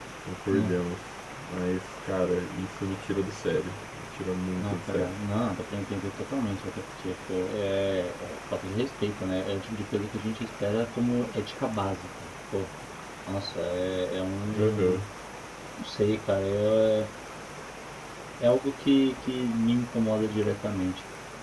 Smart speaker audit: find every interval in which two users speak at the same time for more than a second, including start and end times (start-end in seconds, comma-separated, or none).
none